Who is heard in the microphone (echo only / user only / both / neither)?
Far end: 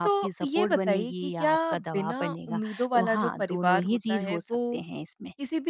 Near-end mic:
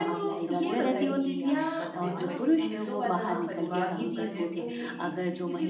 both